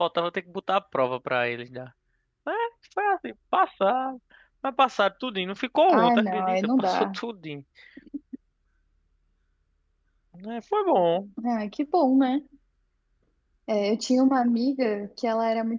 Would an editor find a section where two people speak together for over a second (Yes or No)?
Yes